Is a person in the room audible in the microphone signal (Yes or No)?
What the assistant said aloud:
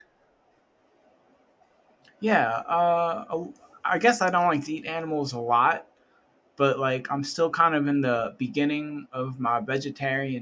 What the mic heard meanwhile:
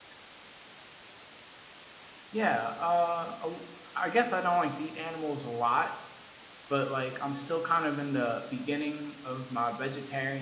No